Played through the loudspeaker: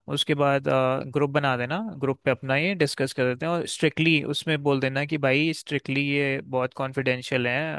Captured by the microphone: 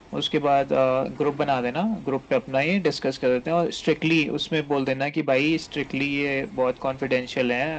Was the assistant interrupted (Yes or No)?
No